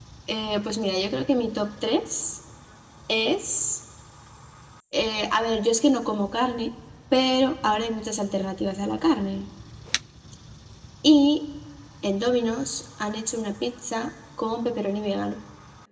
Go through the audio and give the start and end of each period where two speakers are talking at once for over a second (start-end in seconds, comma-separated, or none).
none